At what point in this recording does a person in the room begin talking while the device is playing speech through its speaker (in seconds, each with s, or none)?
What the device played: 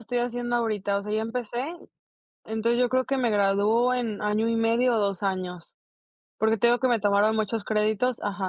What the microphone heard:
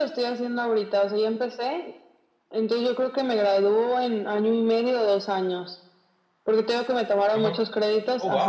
7.3 s